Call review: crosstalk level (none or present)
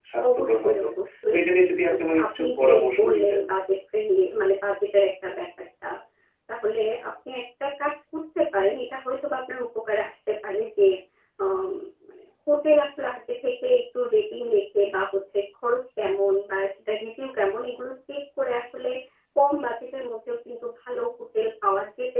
present